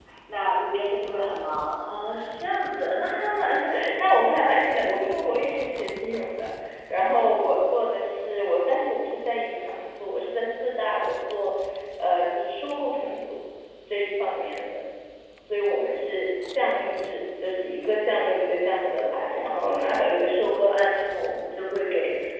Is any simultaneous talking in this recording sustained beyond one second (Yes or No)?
No